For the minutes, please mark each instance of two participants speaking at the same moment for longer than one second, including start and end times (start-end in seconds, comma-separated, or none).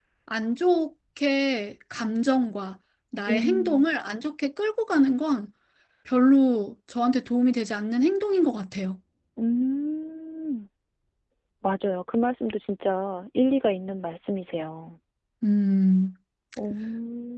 none